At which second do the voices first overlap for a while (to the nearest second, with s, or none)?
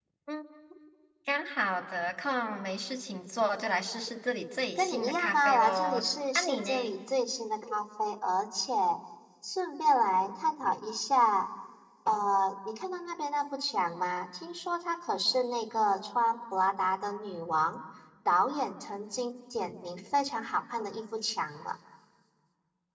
5 s